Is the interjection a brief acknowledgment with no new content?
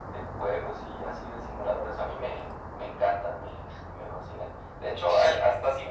Yes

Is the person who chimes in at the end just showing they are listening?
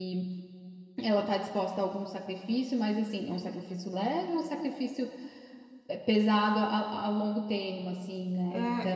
No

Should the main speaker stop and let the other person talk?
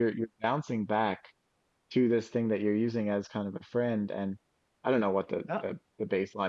No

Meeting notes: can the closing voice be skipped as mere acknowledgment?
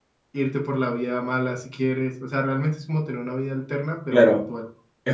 No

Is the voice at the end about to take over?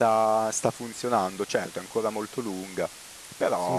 No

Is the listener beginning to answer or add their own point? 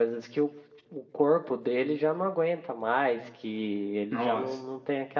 No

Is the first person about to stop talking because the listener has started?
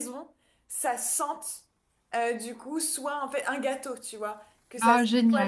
No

